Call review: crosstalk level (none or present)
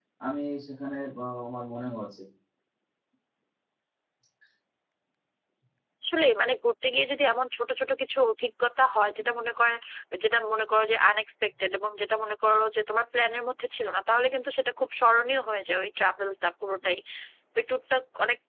none